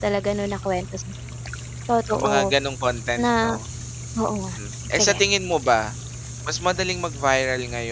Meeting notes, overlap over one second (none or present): none